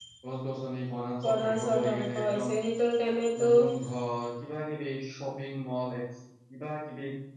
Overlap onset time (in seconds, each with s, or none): 1.2 s